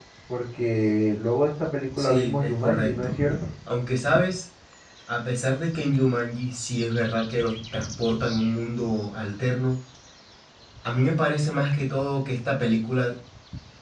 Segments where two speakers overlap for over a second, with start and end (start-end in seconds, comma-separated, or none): 2.0-3.2